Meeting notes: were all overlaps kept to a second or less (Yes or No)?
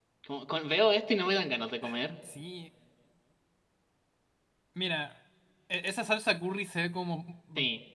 Yes